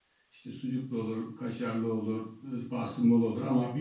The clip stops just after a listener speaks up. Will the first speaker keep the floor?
Yes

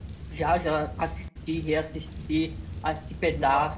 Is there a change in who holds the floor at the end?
No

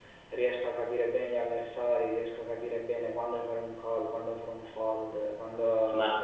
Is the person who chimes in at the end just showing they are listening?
No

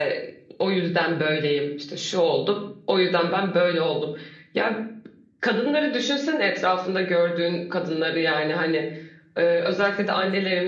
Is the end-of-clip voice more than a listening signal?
No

